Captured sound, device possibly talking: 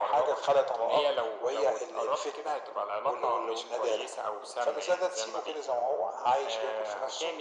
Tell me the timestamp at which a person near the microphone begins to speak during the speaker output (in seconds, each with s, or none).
none